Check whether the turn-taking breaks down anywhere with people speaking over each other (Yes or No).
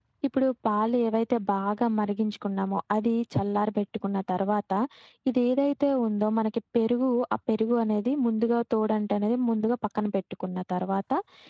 No